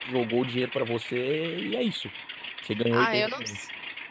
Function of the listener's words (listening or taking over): taking over